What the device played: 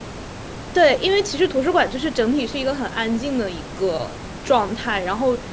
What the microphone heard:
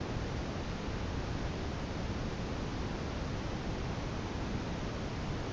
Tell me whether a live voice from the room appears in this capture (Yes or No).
No